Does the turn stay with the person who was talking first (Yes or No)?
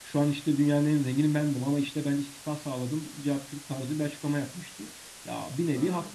Yes